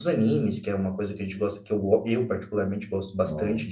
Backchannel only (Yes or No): No